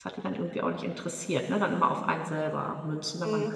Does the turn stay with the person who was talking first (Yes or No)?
No